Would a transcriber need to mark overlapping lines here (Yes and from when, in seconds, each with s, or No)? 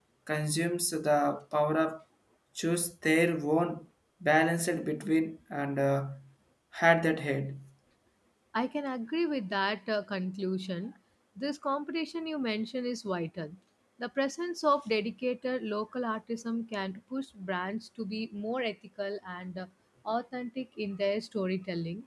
No